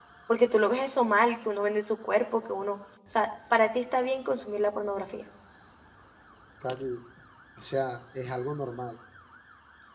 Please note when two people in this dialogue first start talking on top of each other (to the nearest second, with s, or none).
none